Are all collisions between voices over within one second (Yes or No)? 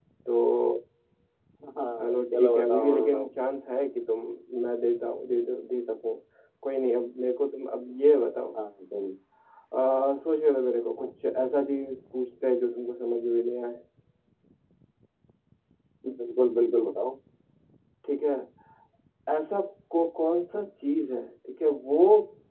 No